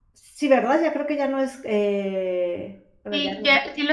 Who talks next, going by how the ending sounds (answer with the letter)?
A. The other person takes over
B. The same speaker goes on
A